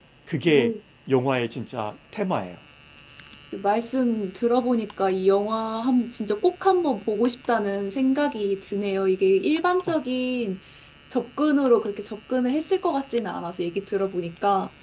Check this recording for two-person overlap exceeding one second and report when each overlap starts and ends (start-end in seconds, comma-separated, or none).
none